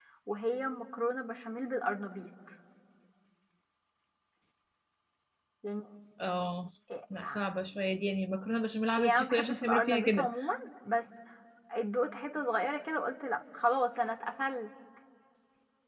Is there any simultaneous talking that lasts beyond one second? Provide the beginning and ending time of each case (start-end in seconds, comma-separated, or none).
9.0-10.3